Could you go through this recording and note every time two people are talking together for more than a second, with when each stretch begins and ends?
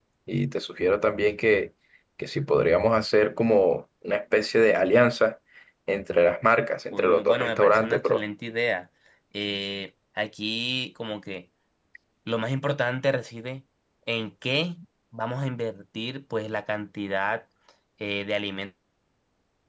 6.9-8.2

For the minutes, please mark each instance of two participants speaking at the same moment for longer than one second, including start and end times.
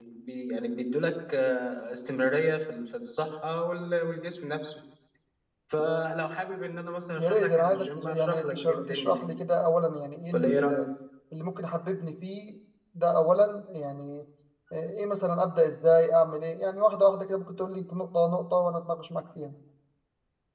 7.2-9.3

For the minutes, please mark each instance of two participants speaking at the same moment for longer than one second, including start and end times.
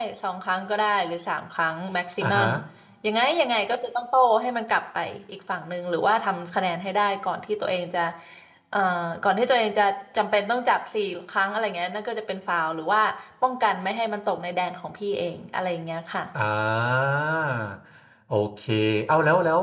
none

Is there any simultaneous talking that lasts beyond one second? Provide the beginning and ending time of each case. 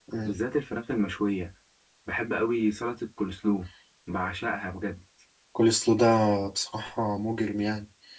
none

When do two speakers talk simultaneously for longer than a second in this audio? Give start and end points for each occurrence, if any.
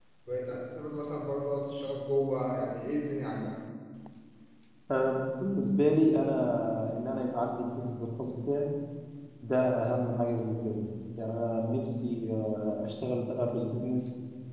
none

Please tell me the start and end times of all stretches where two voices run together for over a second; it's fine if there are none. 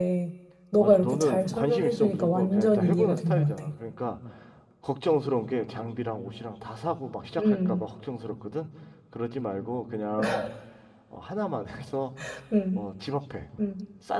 0.8-3.6

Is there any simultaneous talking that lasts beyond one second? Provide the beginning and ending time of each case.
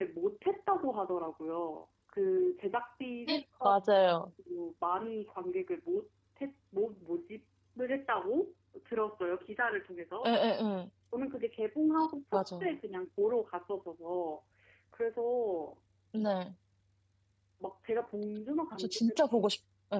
none

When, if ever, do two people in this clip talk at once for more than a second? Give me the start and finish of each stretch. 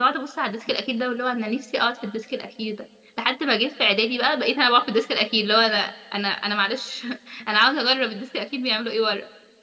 none

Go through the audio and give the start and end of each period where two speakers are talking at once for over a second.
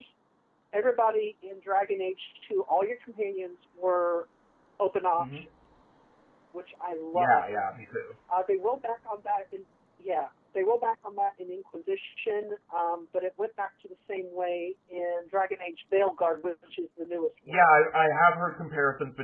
none

